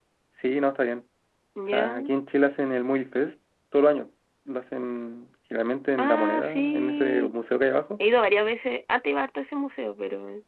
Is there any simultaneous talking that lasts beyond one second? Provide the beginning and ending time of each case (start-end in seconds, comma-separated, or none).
6.0-7.3